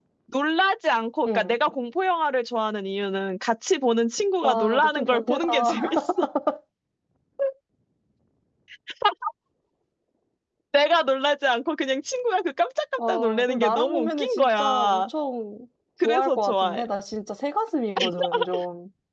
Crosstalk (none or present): present